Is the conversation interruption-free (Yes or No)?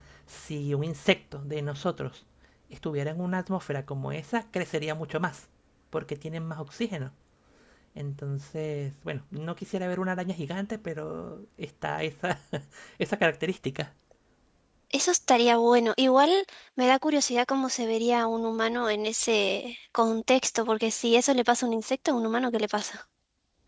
Yes